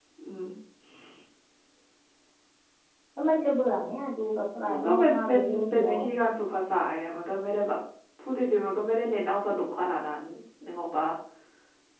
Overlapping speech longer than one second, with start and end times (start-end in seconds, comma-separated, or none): 4.7-6.1